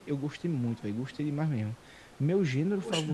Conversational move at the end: listening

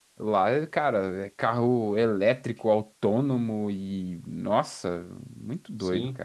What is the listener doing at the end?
taking over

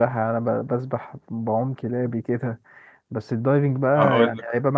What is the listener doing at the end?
listening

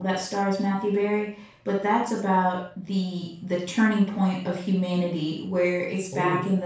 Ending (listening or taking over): listening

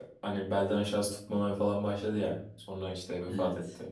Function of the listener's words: listening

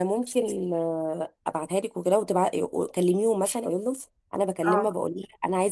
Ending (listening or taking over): listening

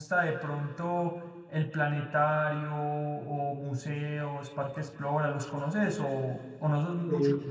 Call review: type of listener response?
listening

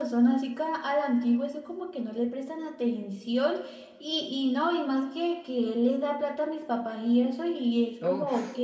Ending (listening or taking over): listening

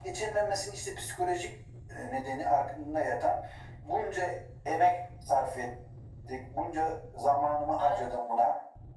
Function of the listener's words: listening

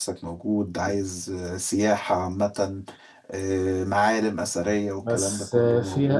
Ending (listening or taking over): taking over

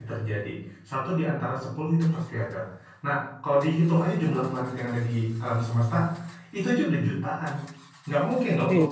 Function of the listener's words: listening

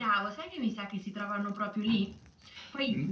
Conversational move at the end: listening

